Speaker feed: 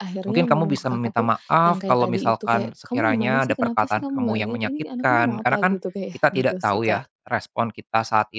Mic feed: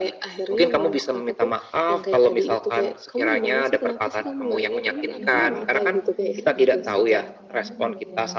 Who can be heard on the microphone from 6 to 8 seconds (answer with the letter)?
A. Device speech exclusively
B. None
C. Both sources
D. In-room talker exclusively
C